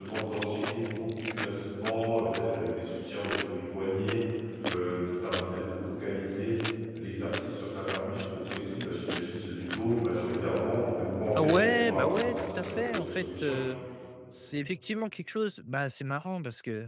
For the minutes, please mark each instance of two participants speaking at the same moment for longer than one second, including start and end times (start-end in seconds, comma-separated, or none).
11.3-13.6